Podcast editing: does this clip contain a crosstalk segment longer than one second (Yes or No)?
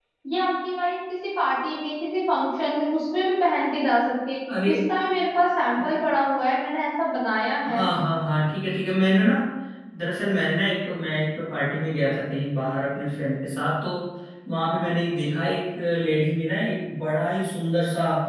No